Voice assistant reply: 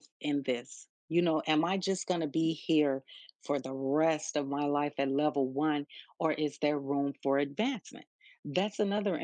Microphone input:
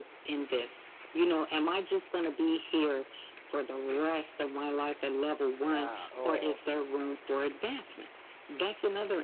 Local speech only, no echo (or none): yeah, oh,